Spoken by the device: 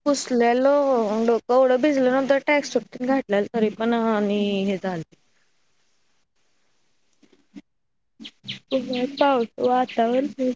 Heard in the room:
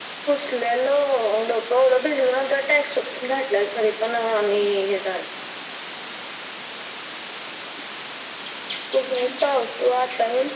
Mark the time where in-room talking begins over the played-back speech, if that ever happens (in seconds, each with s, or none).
none